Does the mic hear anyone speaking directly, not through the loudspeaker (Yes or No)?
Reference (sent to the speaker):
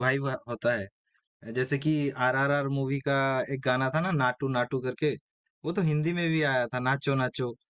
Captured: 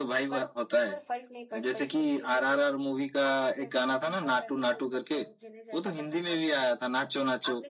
Yes